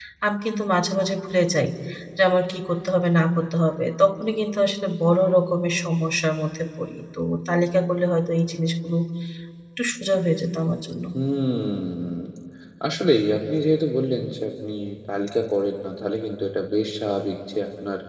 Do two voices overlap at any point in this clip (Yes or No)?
No